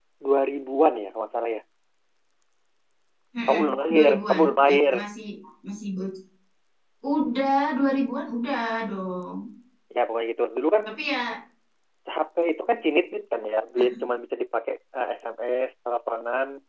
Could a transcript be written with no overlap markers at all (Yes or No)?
No